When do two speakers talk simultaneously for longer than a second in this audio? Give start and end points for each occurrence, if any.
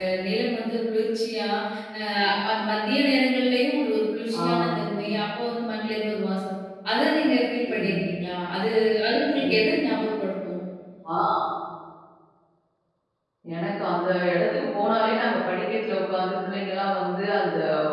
none

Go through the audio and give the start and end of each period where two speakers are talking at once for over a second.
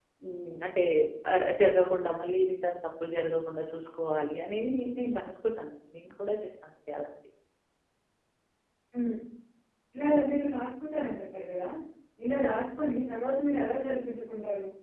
none

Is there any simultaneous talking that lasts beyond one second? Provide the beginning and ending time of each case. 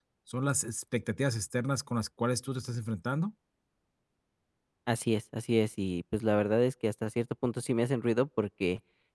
none

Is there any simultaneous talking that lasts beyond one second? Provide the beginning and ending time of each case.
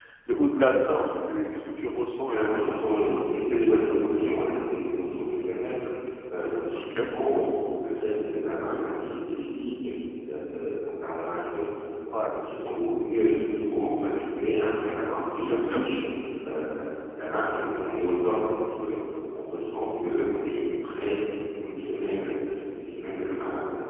2.3-4.2

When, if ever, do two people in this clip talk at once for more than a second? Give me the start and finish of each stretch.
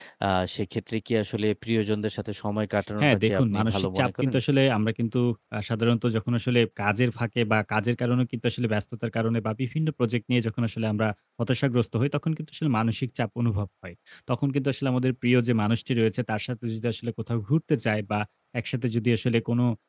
3.0-4.3

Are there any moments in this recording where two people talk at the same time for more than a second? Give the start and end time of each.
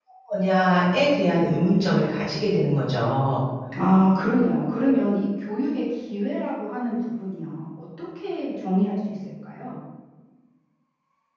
none

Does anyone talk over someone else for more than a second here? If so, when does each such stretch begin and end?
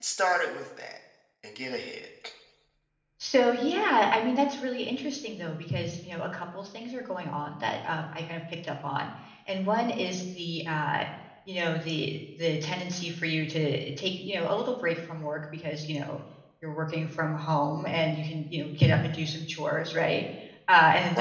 none

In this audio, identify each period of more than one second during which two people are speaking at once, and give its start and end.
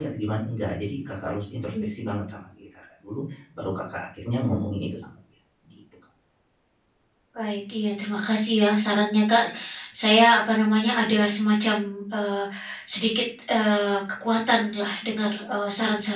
none

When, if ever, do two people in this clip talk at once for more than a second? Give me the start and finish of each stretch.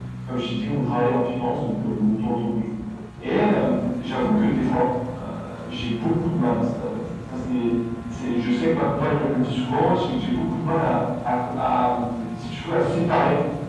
none

